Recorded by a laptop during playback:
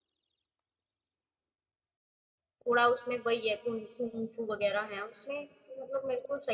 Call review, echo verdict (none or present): none